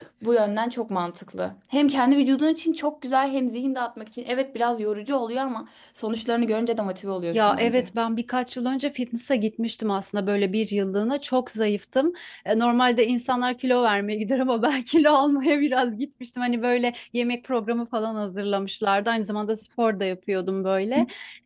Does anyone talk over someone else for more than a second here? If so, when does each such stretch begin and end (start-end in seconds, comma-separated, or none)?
none